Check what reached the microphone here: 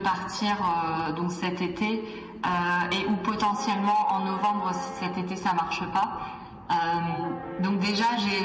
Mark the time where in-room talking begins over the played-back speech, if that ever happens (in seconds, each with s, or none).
none